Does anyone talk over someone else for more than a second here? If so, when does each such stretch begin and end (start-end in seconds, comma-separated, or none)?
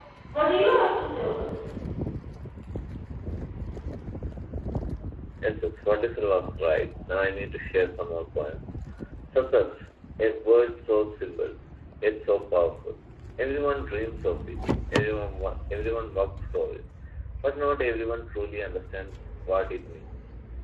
none